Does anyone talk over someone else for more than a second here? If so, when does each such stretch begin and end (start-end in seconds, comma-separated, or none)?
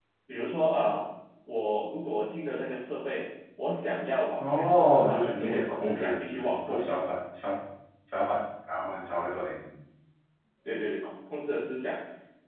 4.4-7.0